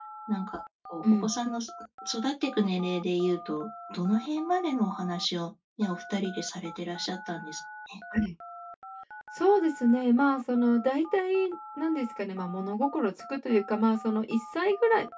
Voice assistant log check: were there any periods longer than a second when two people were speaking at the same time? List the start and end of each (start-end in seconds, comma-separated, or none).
none